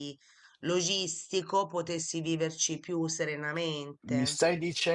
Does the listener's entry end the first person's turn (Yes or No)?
Yes